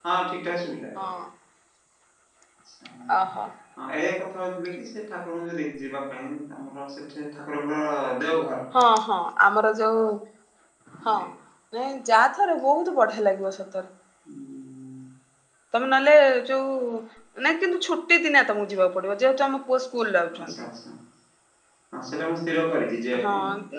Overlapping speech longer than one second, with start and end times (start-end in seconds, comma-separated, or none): none